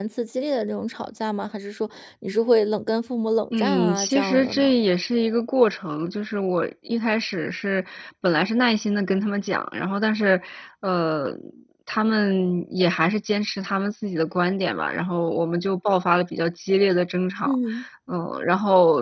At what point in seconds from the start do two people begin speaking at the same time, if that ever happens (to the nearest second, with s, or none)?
4 s